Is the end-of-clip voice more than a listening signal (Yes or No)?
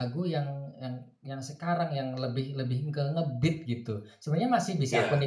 No